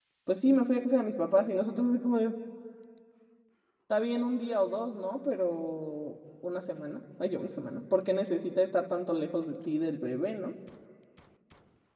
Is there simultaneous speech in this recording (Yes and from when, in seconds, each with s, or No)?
No